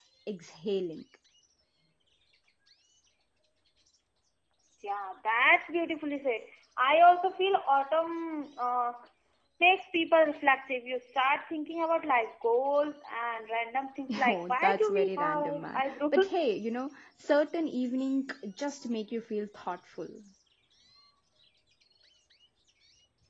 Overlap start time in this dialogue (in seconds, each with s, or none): 14.2 s